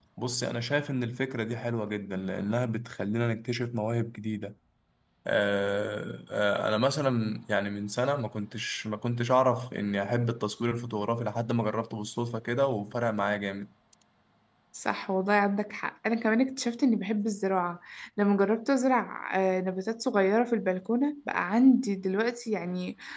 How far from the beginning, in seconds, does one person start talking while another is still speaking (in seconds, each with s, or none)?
none